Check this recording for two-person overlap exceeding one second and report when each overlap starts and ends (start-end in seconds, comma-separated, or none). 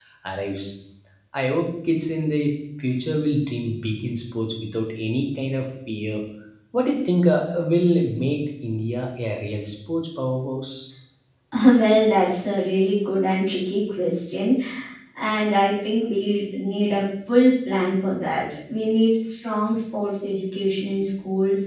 none